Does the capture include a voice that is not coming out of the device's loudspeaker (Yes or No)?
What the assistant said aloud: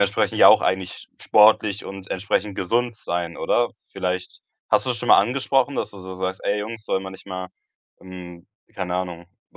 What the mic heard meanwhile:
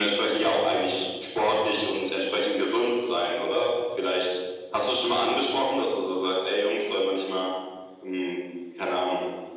No